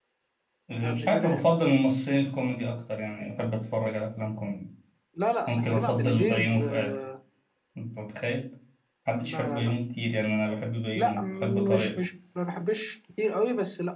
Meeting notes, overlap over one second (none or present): present